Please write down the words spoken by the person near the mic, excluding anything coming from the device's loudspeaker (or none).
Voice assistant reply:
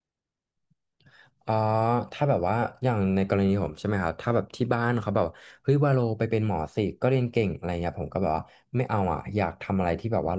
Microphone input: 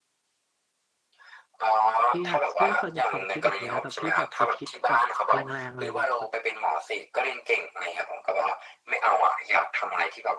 พี่อาจพี่ก็เคยมีความคิดแบบนี้นะแต่พี่แบบจะคิดแบบแรงๆเลยแบบ